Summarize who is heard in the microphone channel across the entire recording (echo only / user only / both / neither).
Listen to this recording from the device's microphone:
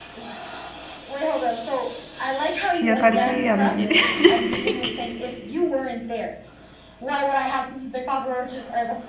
both